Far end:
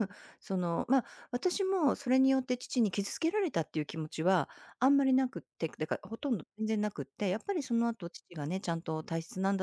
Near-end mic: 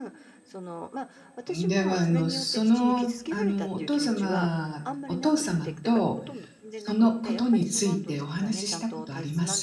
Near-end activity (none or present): present